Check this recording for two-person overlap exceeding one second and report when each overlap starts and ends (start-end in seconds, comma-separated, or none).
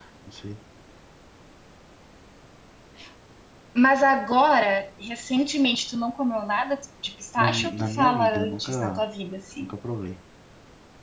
7.4-9.0